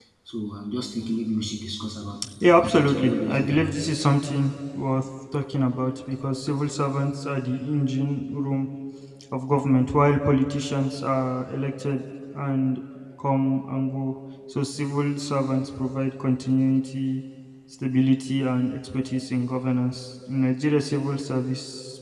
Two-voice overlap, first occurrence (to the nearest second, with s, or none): 2 s